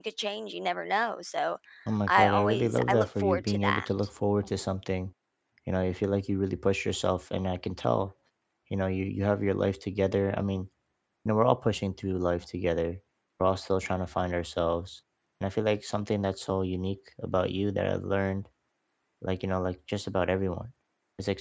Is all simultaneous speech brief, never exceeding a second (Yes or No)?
No